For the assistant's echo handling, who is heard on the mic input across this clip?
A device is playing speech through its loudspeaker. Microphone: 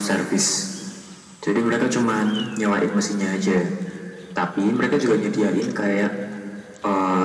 echo only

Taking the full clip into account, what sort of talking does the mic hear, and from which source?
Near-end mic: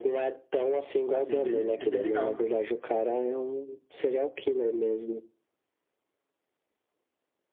both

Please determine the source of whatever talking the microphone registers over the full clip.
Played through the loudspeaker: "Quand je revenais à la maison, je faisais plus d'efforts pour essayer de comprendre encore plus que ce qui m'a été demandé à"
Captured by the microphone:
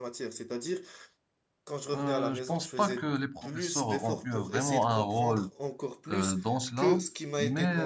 both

